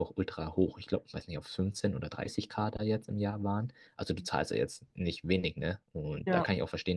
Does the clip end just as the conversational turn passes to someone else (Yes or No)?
No